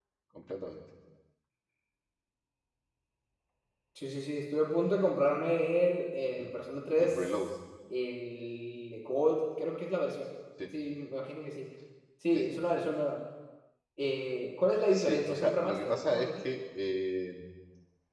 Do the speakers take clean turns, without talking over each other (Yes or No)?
No